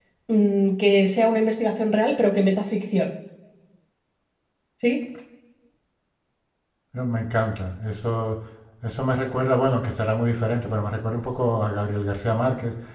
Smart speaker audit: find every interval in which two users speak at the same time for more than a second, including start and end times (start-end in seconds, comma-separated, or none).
none